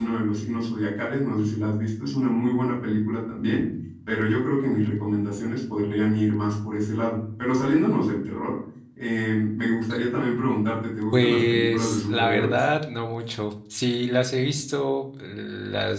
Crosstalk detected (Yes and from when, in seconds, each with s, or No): Yes, from 11.1 s